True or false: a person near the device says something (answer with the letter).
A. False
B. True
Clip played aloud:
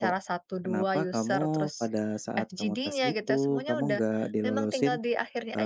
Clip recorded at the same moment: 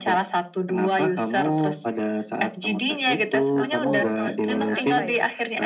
B